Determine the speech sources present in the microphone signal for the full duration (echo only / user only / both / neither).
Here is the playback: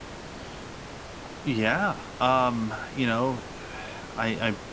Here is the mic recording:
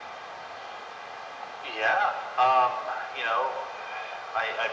echo only